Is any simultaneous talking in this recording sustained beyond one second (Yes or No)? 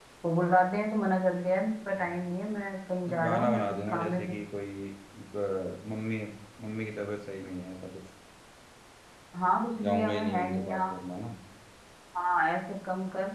Yes